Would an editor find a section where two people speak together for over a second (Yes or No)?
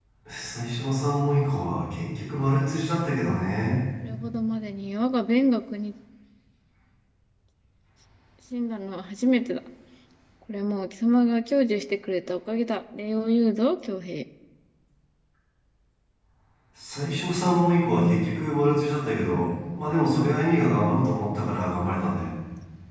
No